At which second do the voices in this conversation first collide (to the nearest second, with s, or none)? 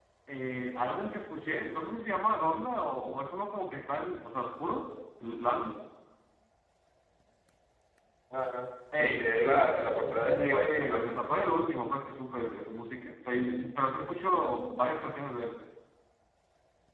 9 s